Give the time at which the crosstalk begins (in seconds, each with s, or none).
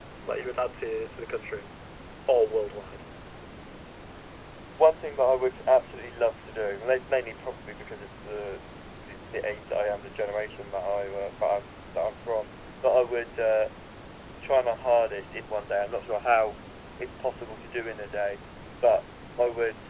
none